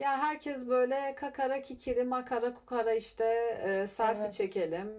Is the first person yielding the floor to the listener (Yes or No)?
No